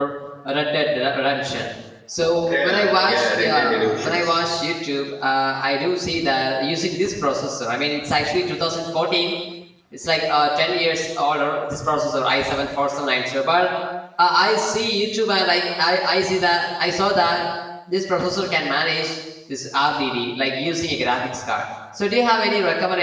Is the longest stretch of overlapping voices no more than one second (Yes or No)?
No